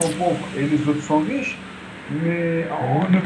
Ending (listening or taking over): listening